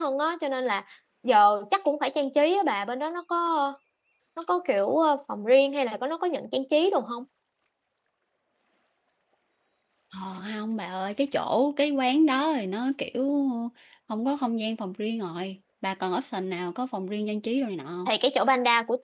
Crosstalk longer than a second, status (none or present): none